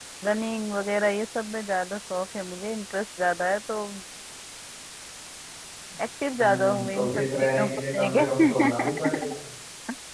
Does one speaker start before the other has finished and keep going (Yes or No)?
Yes